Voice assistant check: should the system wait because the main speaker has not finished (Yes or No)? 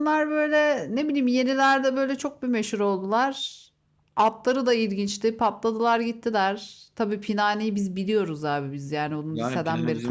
No